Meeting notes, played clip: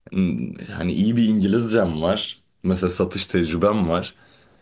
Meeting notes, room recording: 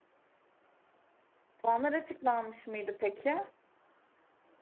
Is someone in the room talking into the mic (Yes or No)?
Yes